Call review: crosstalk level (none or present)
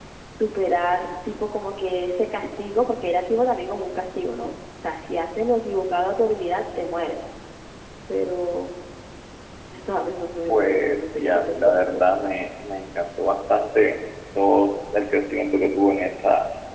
present